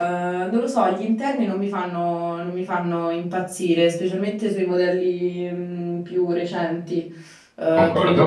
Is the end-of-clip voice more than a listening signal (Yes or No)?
No